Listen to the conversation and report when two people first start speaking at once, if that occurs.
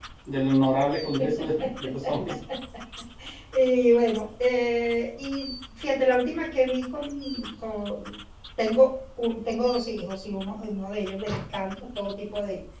none

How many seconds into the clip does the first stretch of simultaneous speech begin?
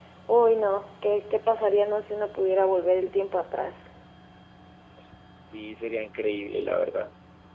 none

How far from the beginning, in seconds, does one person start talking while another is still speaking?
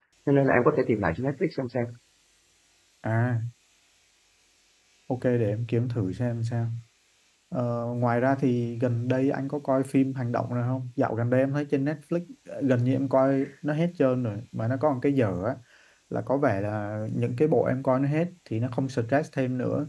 none

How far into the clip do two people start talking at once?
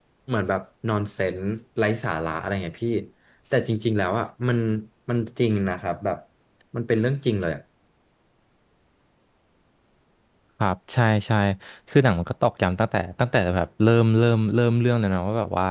none

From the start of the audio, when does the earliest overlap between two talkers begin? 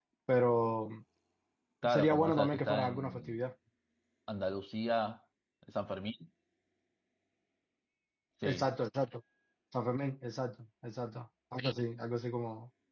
2 s

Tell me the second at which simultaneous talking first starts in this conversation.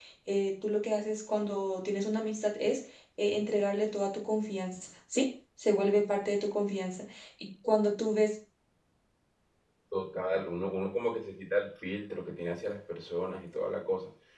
none

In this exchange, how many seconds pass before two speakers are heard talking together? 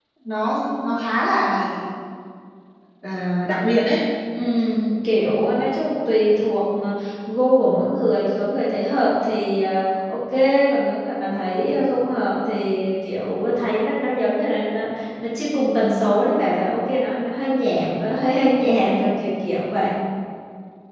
none

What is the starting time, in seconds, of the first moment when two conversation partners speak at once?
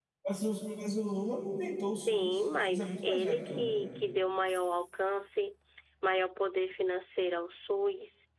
2 s

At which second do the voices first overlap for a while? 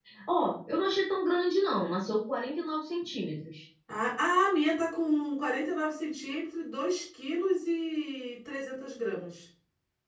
none

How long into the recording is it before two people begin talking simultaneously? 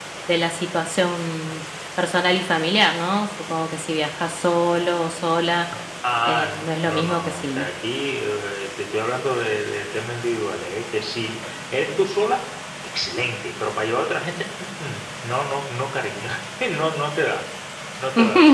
6 s

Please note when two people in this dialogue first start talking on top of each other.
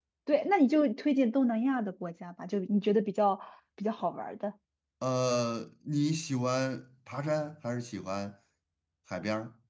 none

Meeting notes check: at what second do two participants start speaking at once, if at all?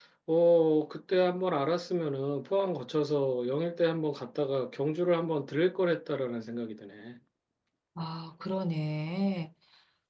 none

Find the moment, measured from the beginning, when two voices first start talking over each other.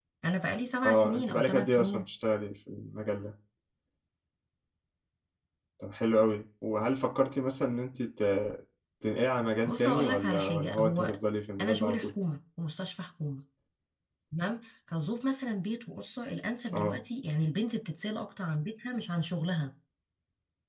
1 s

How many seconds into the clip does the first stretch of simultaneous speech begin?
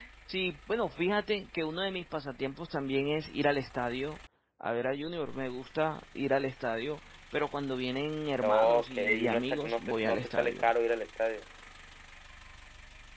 8 s

